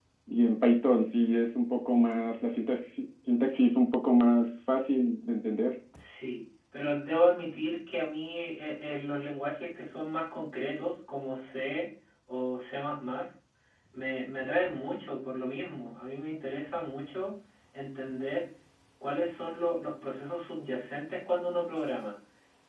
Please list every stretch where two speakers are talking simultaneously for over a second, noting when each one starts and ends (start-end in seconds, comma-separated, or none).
none